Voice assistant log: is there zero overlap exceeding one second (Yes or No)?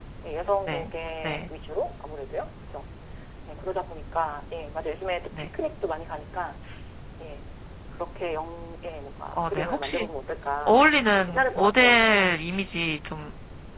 No